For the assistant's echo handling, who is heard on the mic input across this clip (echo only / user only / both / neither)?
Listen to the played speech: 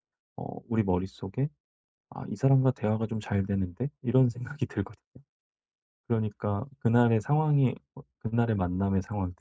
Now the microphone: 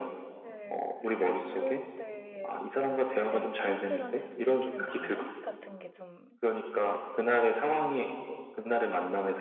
both